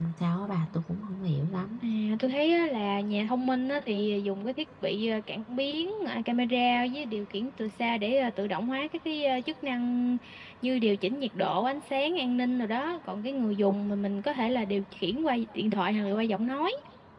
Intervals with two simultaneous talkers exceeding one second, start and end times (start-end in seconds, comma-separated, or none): none